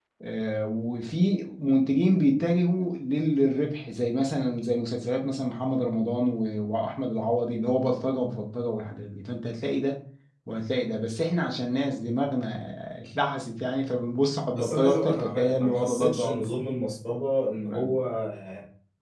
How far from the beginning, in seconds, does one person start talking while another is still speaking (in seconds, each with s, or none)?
14.5 s